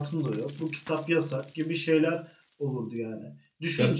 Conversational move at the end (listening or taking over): listening